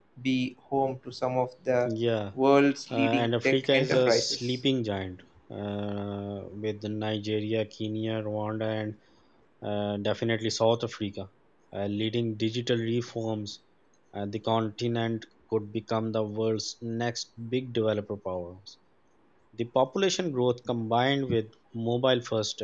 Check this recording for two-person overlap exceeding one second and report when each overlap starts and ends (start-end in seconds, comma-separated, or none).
2.9-4.6